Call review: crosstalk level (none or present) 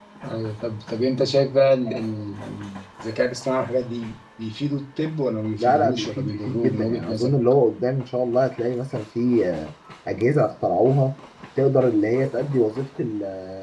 present